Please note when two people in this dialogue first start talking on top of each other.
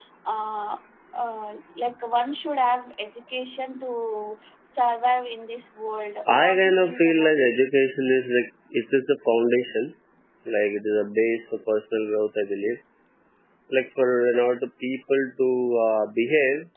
6.3 s

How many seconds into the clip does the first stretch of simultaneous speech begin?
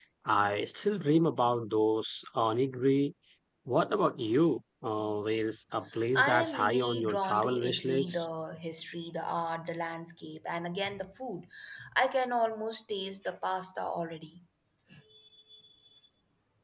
6.2 s

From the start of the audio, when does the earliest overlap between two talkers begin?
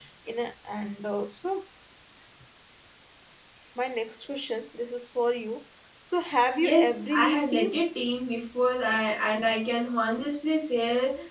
6.6 s

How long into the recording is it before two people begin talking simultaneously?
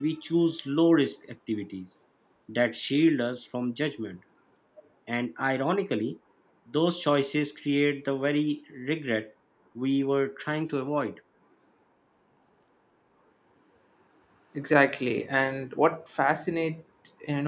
none

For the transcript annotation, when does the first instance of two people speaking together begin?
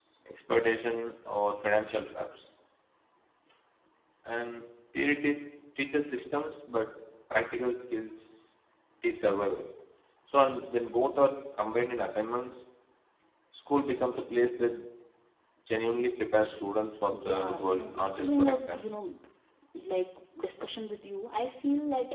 17.1 s

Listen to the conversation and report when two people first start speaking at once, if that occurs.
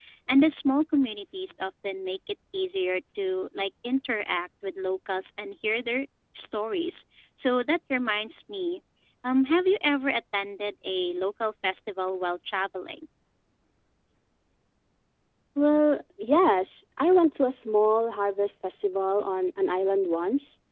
none

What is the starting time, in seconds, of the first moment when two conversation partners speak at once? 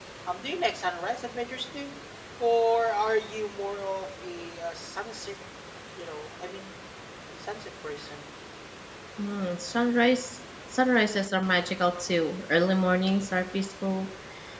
none

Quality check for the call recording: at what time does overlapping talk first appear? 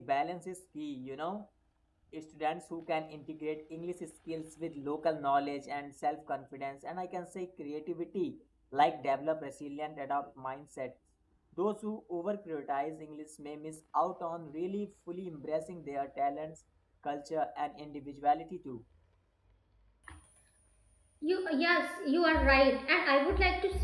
none

